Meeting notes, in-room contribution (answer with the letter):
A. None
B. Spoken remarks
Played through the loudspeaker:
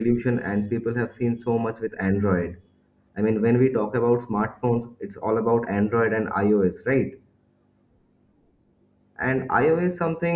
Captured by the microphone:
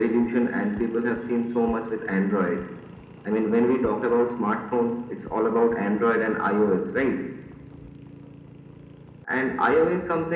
A